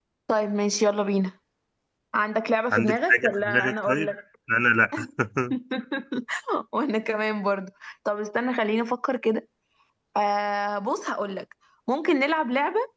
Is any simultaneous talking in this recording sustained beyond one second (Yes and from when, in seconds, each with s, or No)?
Yes, from 2.7 s